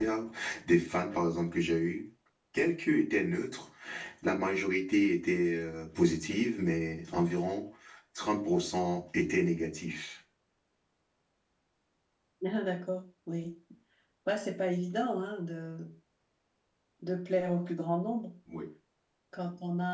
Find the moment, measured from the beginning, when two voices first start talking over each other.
none

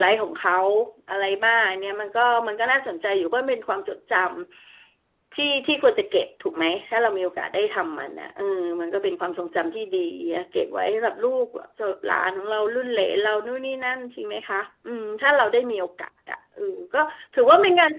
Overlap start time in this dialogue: none

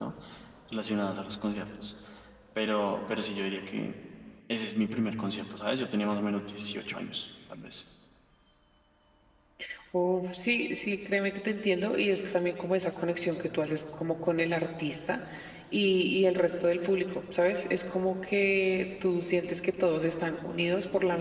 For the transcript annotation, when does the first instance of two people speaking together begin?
none

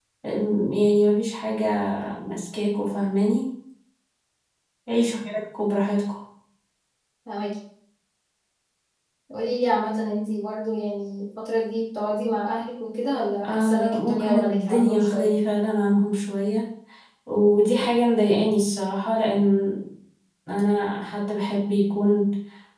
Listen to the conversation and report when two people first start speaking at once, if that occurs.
13 s

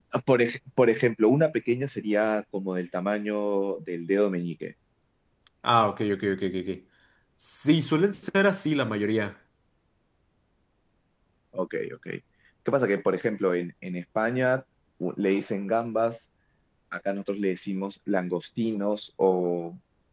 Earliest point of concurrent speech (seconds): none

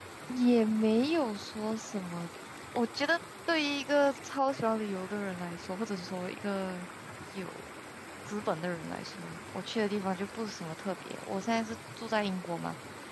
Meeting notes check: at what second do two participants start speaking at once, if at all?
none

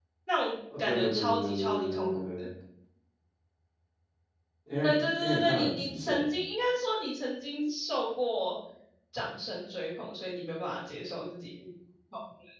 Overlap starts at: 1 s

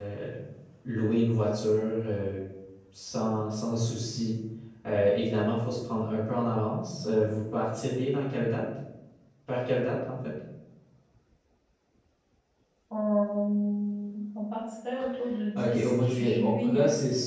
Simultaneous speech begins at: 16 s

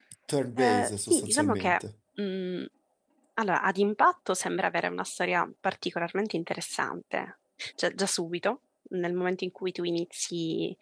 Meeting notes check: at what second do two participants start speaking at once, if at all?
1 s

